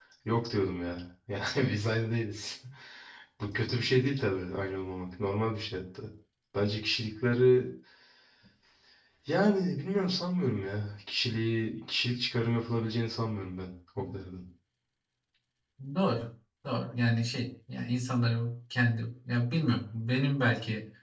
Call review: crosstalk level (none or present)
none